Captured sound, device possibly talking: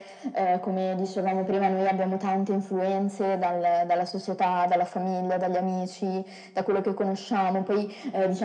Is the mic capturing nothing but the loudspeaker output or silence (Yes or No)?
Yes